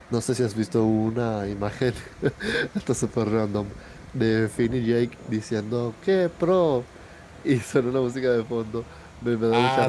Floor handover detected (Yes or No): No